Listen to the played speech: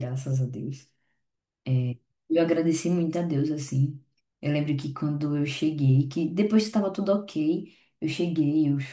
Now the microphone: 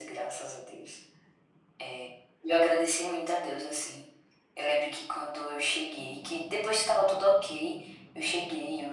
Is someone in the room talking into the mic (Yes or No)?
No